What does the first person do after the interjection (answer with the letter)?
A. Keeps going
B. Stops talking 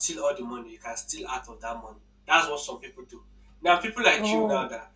A